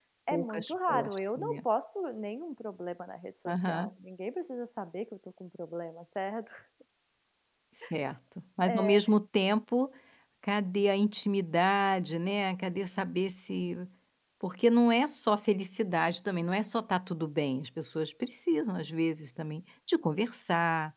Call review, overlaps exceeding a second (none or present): present